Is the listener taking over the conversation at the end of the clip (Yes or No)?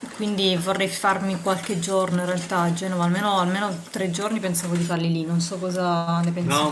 Yes